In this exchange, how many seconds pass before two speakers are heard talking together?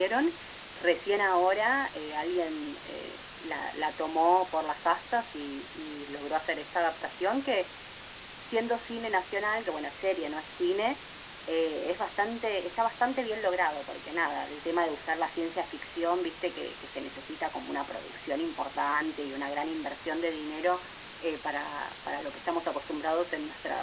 none

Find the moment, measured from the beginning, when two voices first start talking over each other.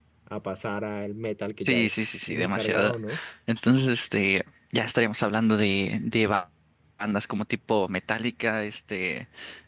1.6 s

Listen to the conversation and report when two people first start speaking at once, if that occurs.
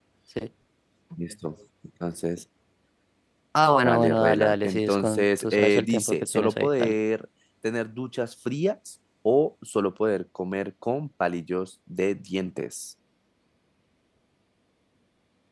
3.9 s

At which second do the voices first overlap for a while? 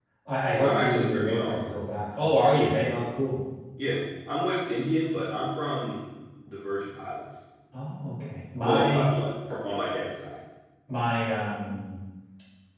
0.5 s

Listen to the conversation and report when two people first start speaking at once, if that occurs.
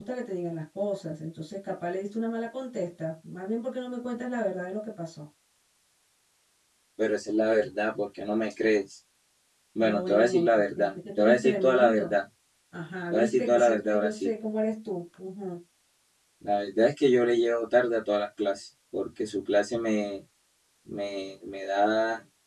9.8 s

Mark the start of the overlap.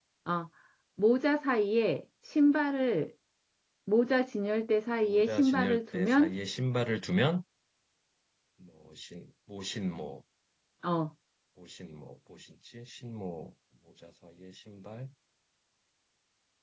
5.1 s

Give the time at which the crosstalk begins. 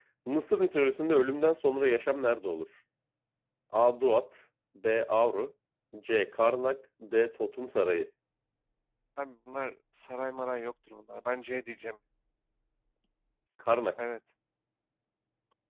none

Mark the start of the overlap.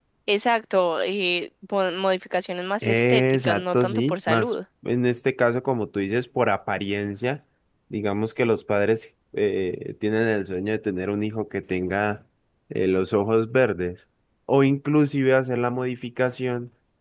2.8 s

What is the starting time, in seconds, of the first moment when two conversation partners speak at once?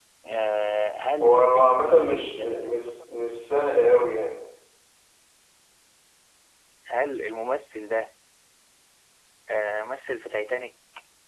1.2 s

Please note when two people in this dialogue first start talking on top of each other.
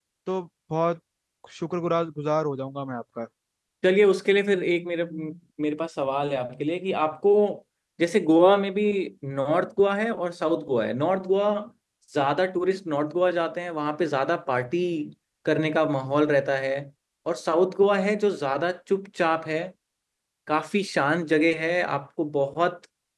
none

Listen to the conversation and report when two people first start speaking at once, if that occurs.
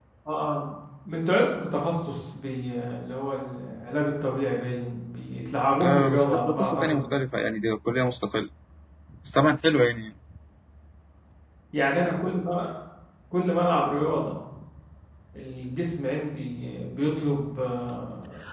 5.8 s

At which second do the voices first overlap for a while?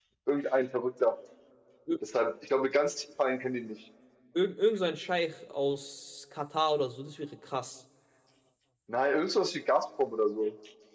none

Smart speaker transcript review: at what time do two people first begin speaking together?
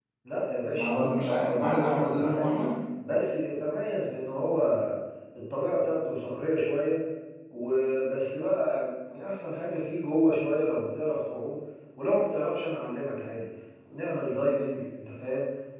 0.7 s

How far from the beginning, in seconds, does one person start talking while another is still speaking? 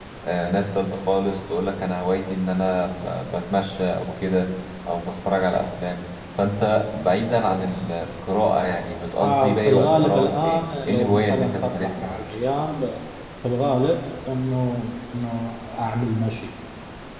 9.2 s

